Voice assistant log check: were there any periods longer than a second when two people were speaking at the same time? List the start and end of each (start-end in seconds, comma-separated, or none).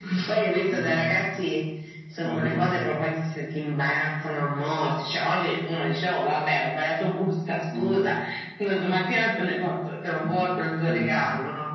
none